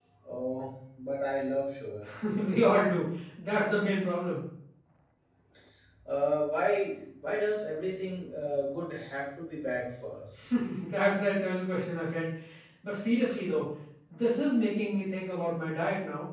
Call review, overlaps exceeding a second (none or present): none